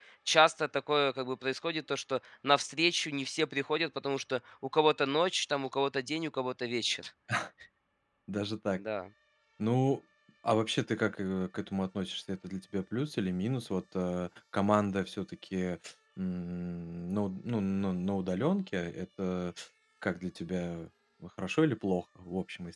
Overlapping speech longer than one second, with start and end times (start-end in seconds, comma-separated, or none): none